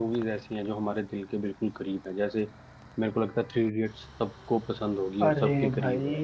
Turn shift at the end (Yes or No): Yes